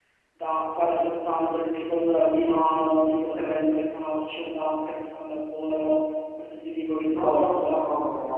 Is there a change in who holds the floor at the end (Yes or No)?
Yes